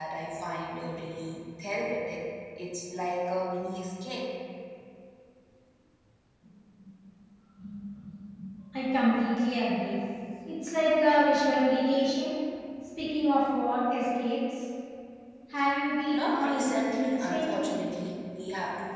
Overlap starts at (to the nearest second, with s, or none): 16 s